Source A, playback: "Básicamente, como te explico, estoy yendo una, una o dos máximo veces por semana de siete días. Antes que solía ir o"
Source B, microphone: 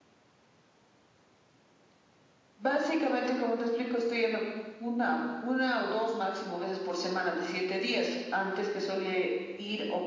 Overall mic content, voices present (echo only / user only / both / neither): echo only